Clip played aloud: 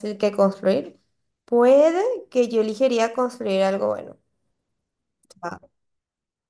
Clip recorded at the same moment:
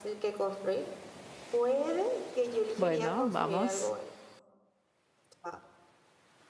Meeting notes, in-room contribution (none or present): present